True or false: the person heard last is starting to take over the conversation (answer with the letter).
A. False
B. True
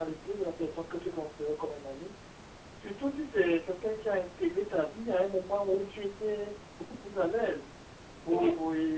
A